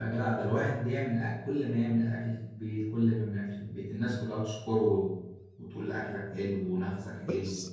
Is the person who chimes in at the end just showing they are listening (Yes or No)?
No